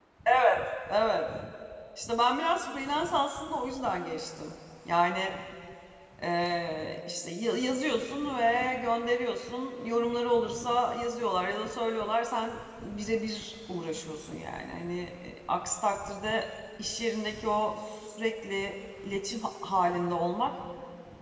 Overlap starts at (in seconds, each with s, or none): none